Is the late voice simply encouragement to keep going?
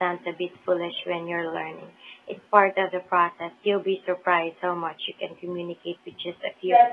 No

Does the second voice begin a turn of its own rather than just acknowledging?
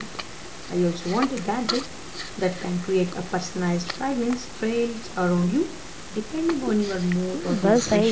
Yes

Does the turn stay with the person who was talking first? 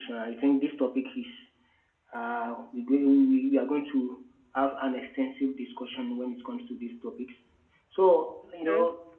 Yes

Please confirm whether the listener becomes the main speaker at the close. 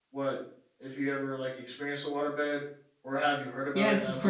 Yes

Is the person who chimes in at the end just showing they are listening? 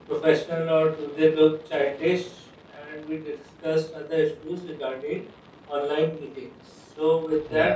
Yes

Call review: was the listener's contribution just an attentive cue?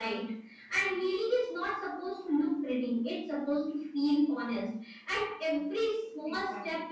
Yes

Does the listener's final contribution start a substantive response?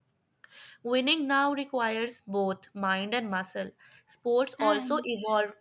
No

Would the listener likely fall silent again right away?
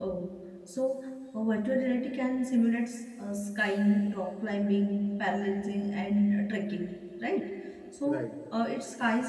Yes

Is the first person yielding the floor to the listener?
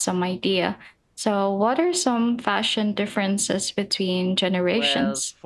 Yes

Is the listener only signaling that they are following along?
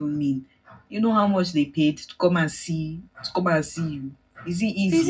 No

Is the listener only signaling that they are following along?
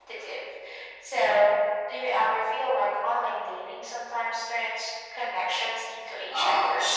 No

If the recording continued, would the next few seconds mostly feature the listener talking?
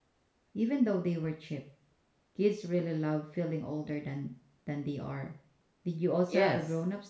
Yes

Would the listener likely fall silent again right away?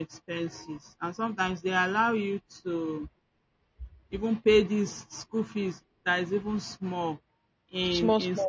Yes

